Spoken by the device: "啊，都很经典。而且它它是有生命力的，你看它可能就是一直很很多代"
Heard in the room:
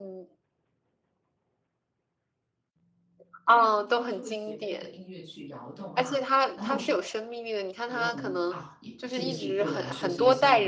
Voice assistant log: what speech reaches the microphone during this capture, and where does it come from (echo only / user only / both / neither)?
both